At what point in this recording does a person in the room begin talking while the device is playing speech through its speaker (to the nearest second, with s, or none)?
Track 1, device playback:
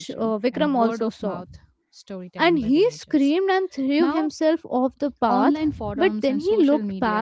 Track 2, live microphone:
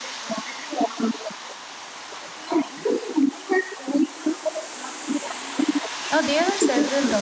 6 s